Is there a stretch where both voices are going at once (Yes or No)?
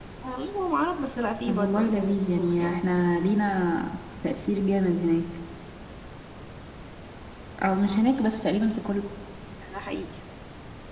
Yes